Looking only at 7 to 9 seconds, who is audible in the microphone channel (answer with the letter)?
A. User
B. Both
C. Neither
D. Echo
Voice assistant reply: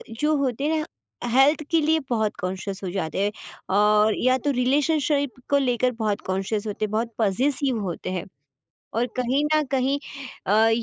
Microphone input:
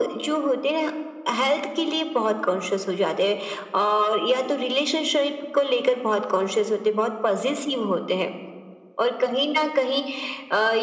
D